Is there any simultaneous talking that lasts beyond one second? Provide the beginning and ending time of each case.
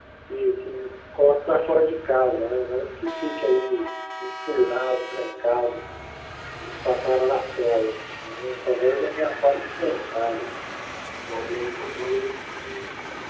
none

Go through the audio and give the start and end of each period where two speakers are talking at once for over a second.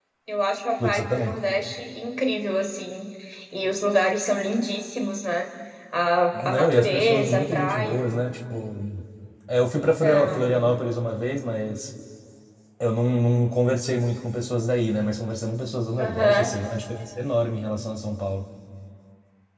6.3-8.0

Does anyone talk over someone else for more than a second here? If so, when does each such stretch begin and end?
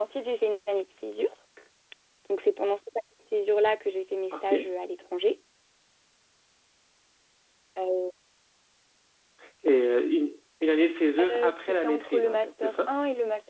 11.3-12.9

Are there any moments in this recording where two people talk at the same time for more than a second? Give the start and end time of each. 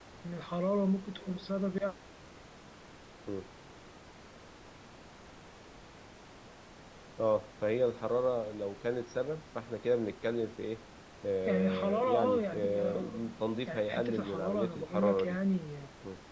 11.5-13.3, 13.7-15.4

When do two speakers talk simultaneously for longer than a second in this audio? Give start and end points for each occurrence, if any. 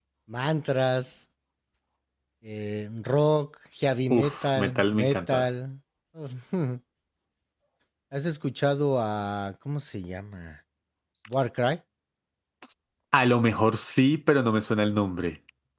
4.2-5.4

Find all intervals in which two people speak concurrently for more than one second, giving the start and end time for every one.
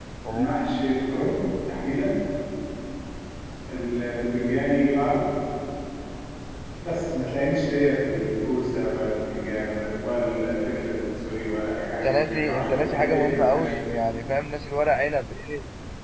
12.0-13.7

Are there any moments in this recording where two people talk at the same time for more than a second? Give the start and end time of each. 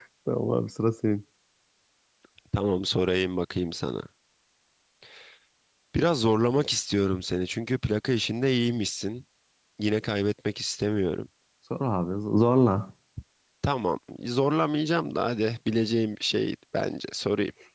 none

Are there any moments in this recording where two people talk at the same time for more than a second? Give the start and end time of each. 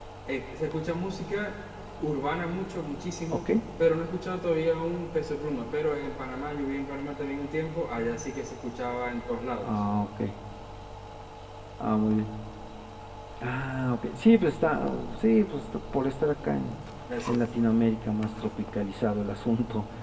none

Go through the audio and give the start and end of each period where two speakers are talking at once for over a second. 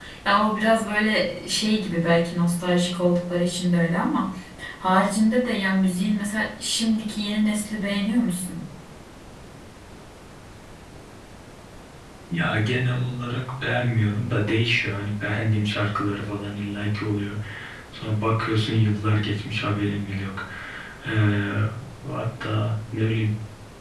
none

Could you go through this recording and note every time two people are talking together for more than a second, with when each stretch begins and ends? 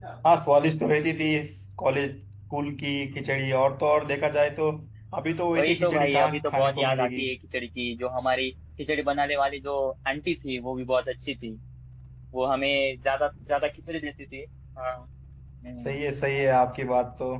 5.6-7.2

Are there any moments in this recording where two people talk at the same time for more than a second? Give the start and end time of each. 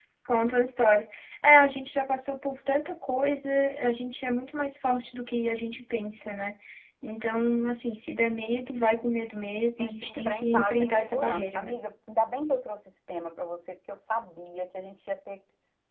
9.8-11.8

